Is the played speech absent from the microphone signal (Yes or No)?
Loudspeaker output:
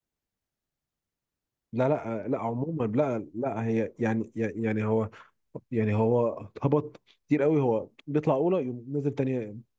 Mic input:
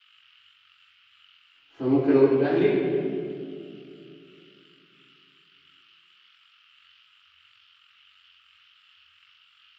Yes